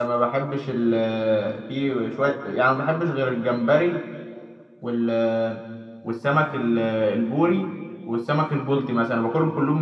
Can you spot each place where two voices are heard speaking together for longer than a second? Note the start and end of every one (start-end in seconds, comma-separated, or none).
none